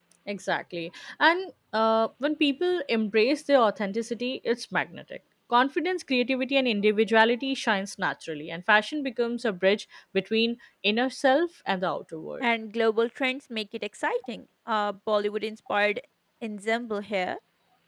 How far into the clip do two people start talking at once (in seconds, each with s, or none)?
none